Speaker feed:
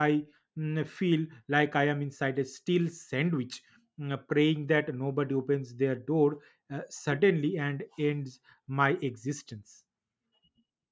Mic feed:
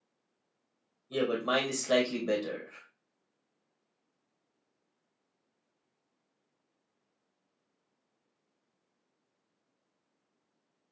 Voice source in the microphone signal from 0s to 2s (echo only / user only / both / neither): user only